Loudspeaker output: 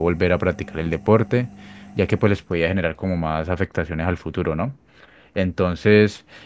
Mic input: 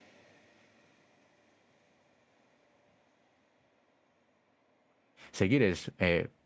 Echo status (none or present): none